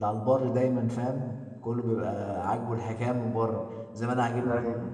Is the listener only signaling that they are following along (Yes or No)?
Yes